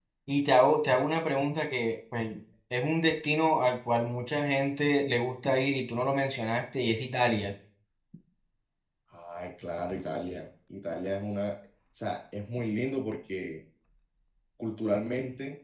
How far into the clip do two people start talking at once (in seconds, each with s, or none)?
none